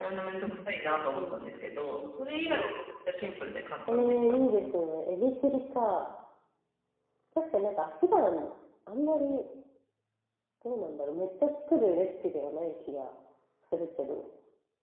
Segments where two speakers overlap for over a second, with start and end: none

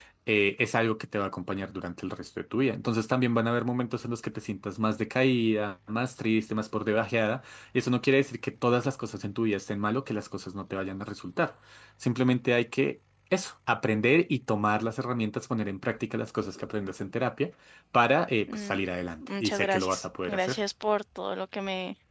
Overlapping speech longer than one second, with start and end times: 19.2-20.6

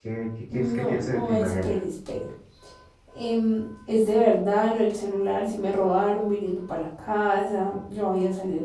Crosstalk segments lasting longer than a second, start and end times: 0.5-1.7

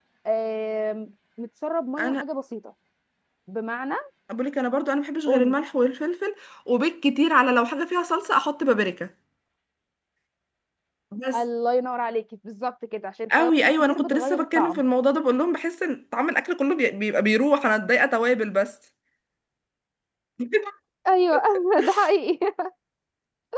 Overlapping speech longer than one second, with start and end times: 13.4-14.8

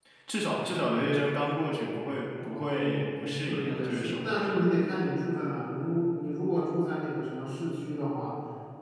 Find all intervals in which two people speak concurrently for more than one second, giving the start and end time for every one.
2.4-4.6

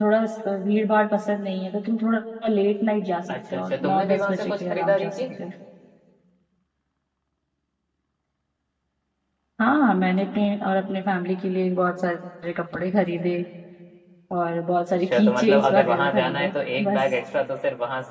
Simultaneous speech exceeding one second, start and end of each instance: 3.5-5.1, 15.1-17.0

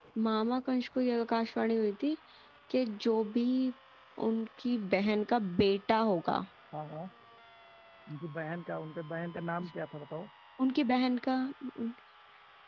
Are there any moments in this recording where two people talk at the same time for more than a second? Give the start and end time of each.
none

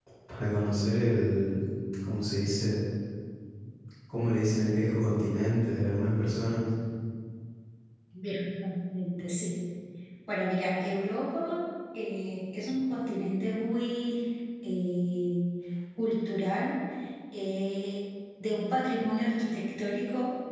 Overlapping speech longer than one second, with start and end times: none

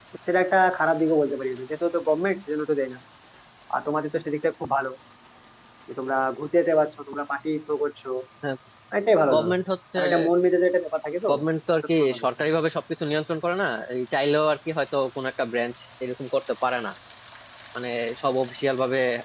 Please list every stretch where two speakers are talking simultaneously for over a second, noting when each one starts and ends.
none

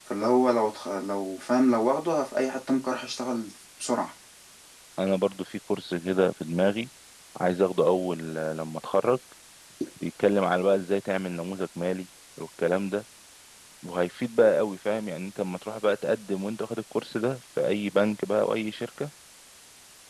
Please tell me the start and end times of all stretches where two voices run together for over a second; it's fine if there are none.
none

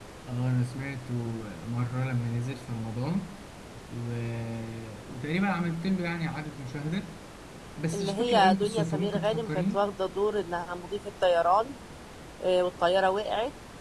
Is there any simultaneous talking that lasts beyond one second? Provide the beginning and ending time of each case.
7.9-9.8

